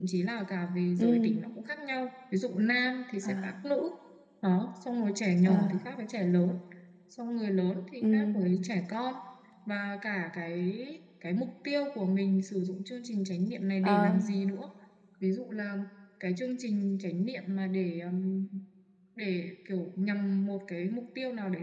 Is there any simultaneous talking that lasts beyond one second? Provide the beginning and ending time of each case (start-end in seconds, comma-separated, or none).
none